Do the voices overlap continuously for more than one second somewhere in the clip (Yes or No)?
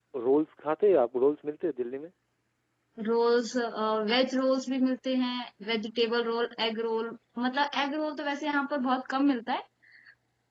No